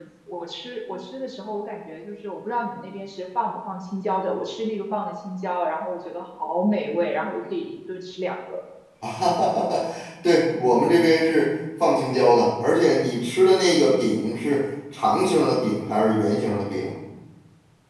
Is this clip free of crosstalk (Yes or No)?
Yes